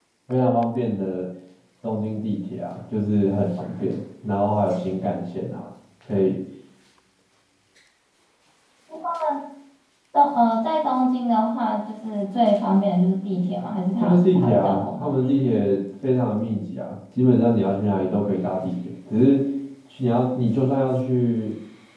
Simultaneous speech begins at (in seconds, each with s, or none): 14.0 s